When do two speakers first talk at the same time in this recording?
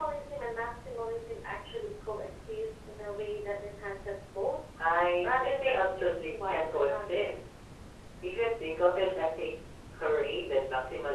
5 s

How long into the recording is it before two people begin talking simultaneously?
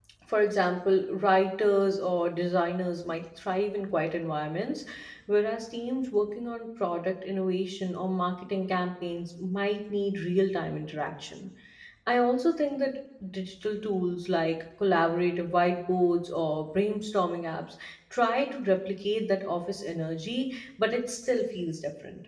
none

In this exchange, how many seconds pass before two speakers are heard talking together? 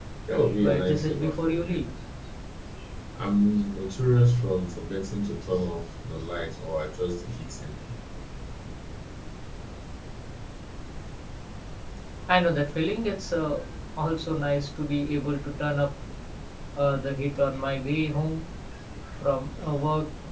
1 s

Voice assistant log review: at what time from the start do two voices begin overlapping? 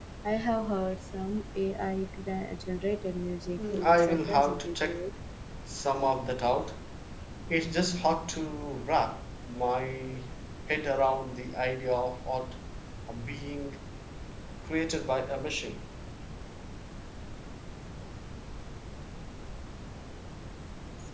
4 s

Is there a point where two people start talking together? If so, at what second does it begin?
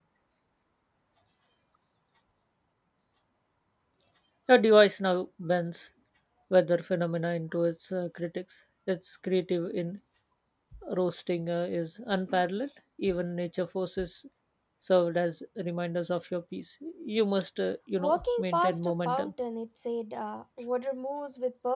18 s

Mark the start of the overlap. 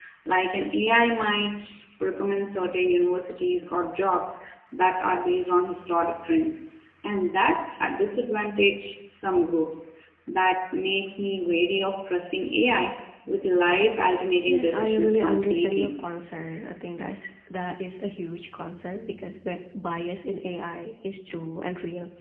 14 s

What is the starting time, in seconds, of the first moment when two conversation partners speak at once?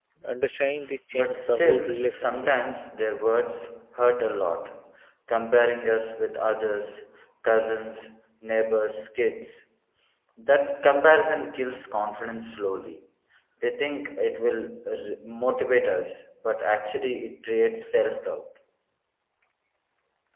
1 s

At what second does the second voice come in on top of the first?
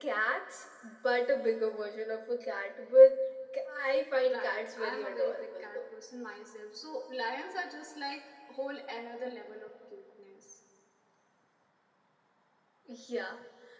4 s

